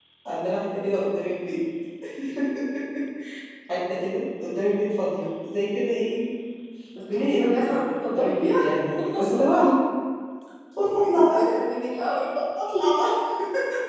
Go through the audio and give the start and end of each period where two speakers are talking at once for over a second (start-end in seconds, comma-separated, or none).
7.1-8.6